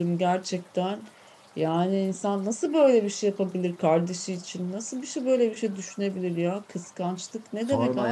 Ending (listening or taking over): taking over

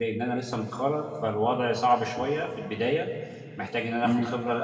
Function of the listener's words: listening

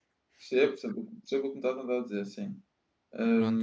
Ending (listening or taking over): taking over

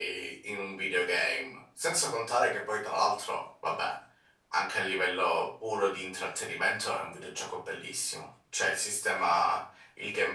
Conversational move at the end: listening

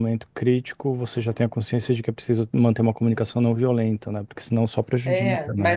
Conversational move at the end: taking over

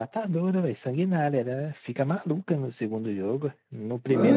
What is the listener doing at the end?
taking over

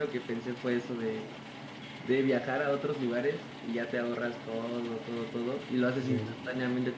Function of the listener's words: listening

